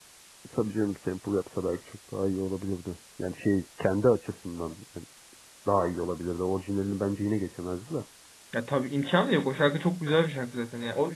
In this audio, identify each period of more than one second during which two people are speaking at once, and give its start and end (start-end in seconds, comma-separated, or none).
none